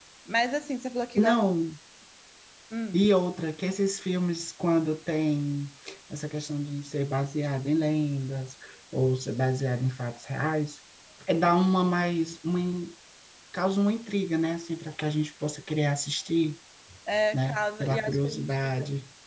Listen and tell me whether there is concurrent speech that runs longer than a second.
Yes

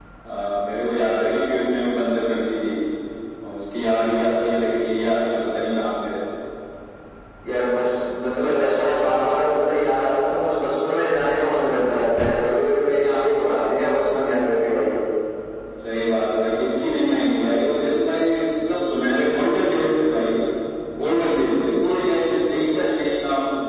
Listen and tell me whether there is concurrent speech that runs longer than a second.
No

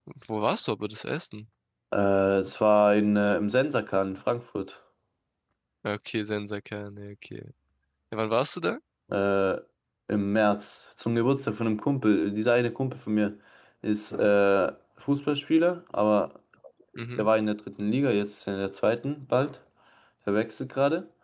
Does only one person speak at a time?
Yes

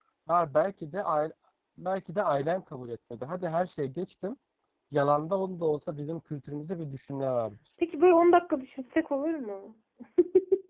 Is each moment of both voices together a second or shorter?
Yes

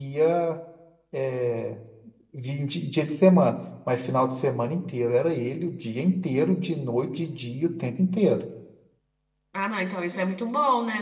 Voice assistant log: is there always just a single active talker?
Yes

